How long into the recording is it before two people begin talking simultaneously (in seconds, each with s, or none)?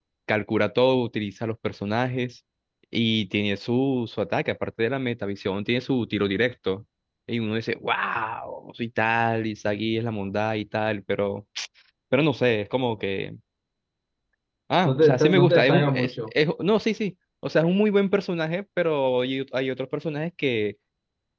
14.8 s